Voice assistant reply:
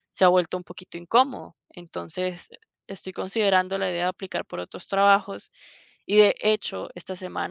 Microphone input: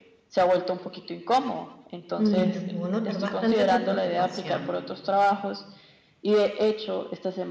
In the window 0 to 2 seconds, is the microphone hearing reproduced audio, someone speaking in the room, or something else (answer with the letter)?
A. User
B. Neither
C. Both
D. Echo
D